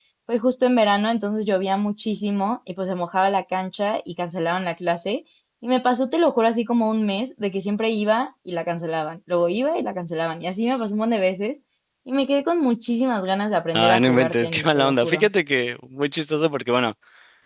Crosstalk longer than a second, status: present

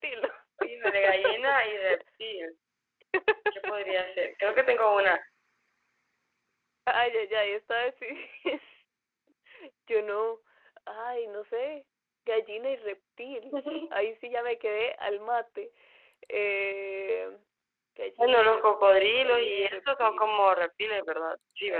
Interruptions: present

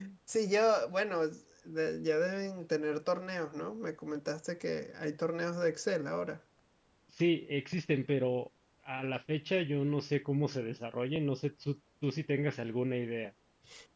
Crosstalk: none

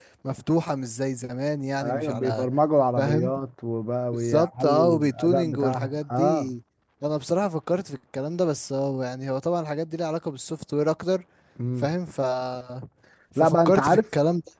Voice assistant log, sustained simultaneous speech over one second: present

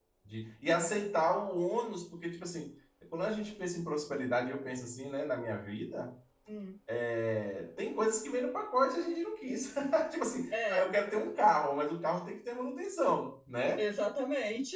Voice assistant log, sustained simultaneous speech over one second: none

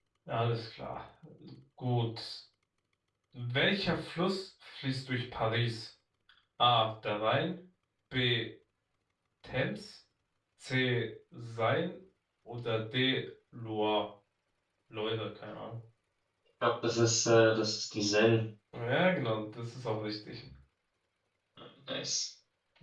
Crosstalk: none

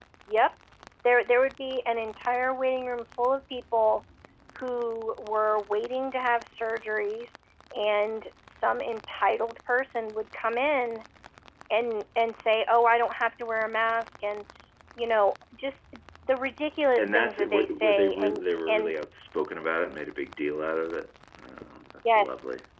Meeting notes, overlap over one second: present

